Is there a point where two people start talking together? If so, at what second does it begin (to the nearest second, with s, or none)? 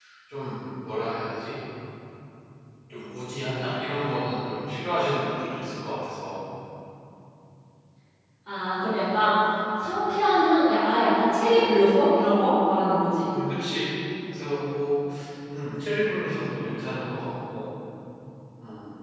none